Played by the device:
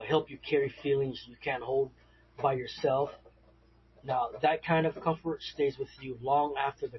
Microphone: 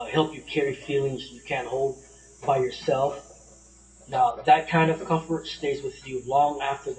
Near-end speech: none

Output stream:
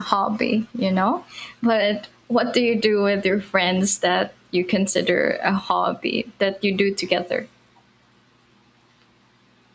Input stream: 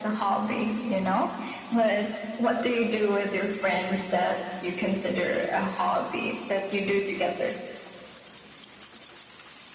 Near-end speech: none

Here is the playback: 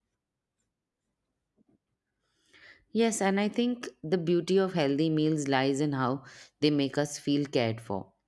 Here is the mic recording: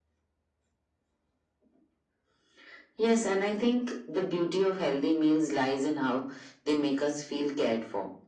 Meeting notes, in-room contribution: none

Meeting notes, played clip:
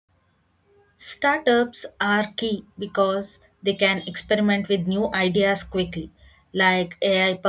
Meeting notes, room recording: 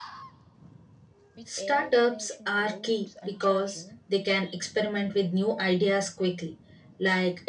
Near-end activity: present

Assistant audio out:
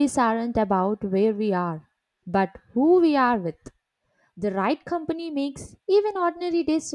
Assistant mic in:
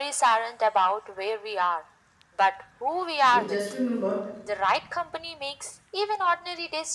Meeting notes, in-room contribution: present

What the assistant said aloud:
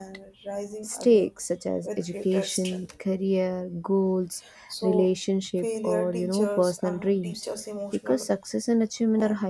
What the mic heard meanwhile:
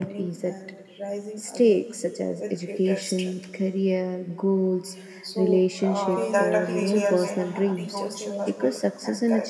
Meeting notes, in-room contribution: present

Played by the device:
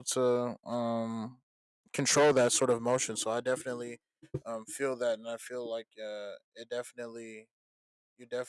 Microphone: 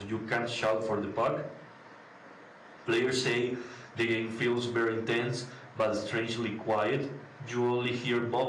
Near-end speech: present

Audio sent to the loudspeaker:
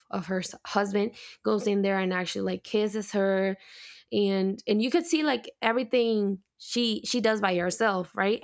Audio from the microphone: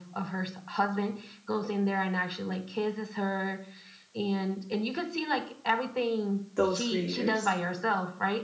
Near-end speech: present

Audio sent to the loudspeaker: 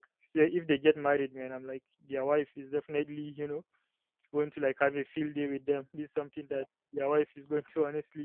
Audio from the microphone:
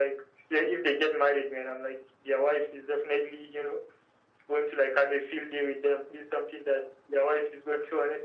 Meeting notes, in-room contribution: none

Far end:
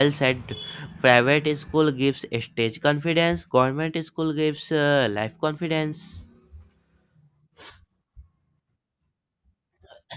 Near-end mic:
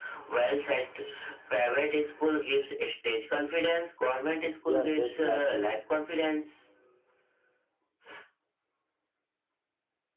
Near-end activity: present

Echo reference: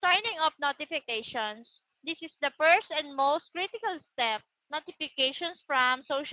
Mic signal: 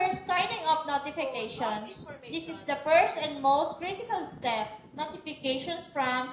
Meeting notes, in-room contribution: present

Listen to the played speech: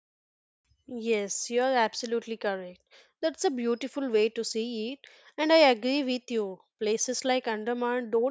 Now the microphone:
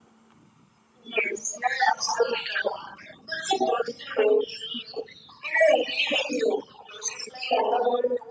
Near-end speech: none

